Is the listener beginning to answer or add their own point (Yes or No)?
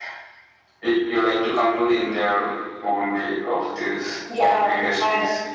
Yes